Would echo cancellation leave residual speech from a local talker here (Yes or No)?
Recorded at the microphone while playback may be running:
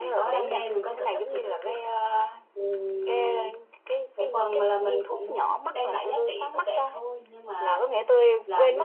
Yes